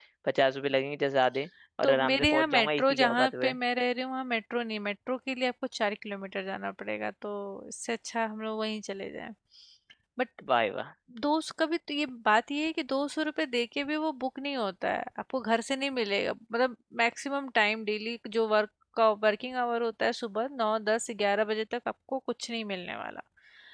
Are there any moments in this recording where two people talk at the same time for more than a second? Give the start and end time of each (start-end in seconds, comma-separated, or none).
1.8-3.5